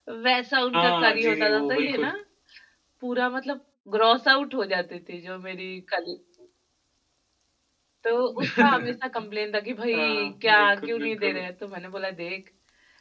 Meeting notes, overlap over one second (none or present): present